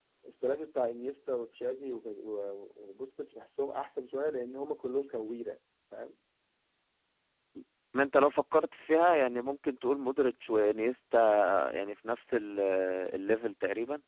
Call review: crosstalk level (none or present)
none